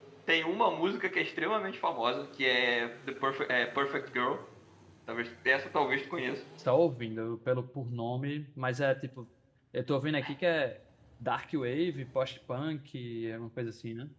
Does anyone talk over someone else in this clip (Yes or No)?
No